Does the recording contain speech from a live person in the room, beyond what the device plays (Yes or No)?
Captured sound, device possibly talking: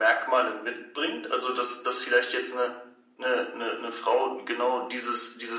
No